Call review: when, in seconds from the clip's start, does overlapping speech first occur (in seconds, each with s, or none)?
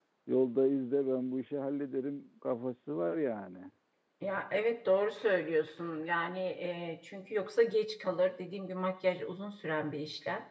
none